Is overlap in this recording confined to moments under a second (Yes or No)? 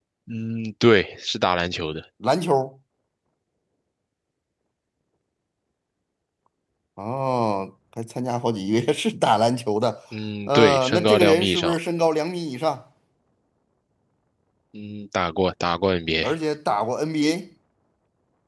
No